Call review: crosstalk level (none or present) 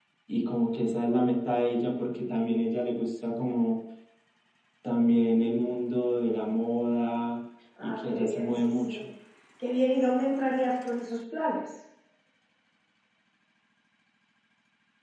present